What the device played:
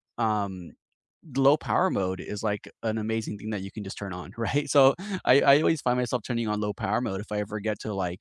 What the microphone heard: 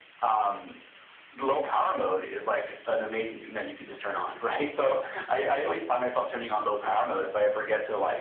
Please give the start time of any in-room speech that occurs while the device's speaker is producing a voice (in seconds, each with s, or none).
none